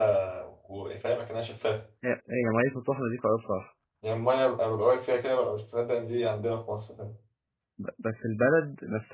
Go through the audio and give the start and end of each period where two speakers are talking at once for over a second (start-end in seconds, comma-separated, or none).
none